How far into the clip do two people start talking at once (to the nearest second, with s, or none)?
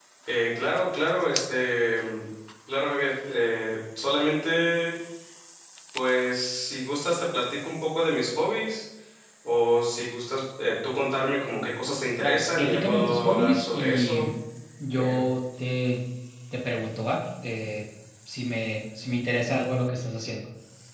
12 s